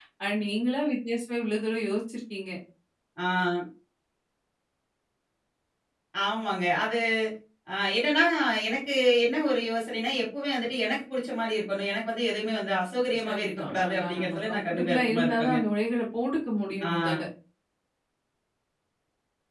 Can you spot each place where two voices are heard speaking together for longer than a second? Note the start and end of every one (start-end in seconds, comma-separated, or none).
13.2-15.6